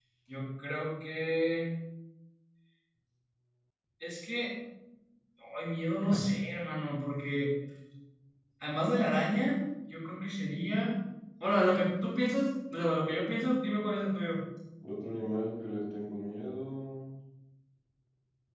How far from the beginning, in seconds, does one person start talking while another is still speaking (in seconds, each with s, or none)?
none